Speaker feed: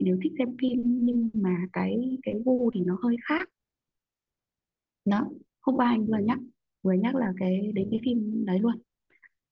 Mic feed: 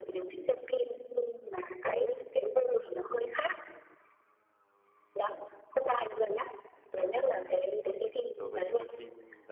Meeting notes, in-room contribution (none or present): present